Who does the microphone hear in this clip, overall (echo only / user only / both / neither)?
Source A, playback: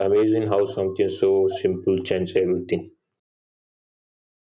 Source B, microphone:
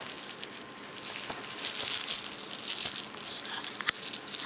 neither